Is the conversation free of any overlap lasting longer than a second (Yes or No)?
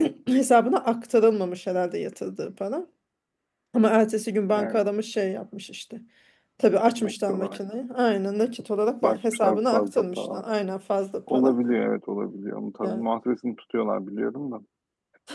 No